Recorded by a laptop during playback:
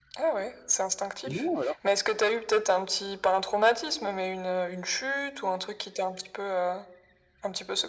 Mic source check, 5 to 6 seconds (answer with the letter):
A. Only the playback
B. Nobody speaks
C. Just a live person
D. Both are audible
A